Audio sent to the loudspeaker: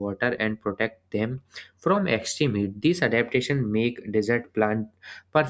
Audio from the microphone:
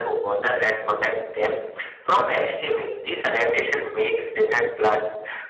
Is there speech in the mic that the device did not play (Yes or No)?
No